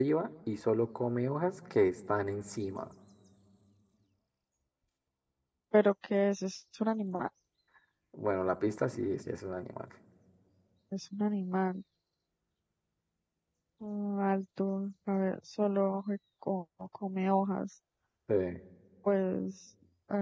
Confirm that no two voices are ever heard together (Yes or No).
Yes